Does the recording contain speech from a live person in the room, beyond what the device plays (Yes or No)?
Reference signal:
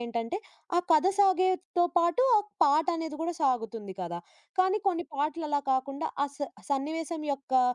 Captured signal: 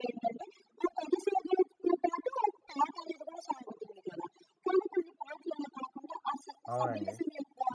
Yes